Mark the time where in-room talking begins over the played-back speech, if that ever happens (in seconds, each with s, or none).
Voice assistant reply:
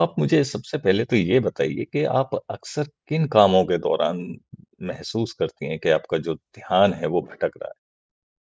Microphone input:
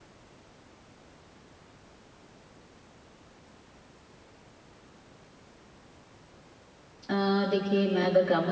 7.1 s